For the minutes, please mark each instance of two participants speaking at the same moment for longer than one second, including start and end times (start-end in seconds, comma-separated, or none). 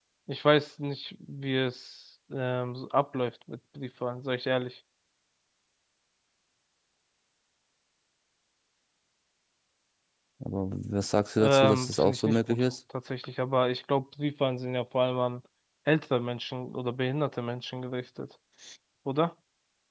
11.4-12.7